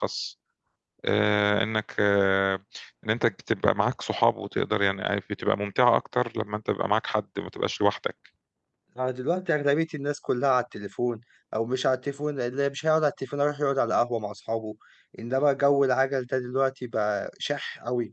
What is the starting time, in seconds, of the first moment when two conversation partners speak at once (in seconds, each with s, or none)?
none